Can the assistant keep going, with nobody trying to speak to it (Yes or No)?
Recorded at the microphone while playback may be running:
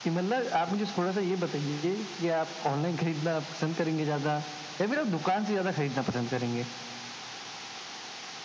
Yes